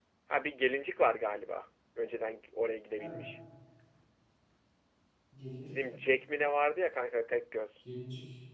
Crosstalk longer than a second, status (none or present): none